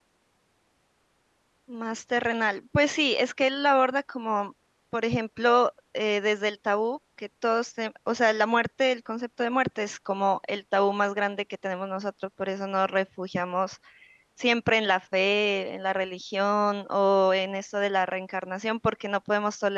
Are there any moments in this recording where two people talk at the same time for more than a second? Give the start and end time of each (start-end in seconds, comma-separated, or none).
none